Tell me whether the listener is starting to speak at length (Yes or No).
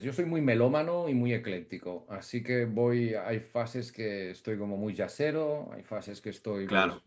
No